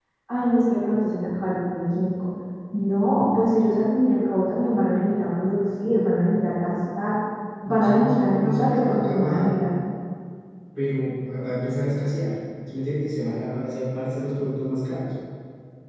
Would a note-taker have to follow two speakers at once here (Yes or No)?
Yes